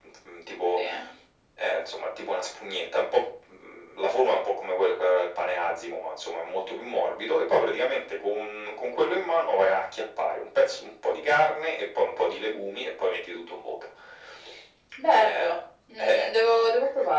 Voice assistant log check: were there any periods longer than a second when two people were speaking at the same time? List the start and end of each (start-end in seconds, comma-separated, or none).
none